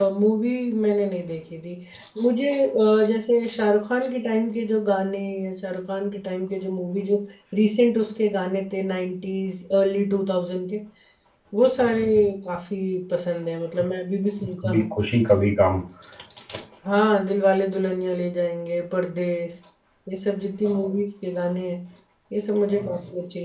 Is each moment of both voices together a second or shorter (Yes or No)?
Yes